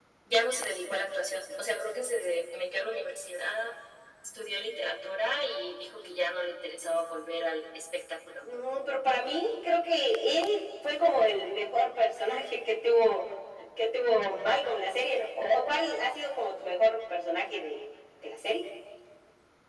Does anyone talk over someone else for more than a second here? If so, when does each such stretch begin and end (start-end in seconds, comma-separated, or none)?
none